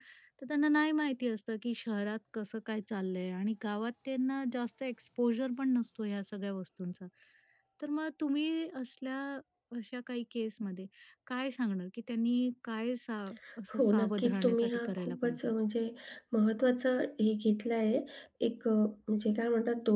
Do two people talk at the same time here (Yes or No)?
Yes